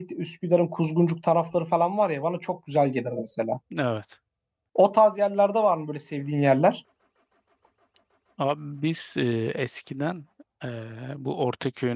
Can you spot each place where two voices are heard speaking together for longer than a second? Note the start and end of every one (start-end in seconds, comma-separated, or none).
none